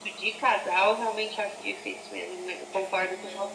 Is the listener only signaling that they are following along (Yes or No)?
No